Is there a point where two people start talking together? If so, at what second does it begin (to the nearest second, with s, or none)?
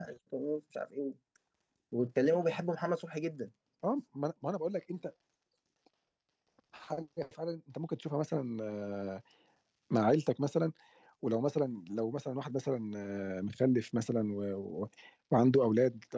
none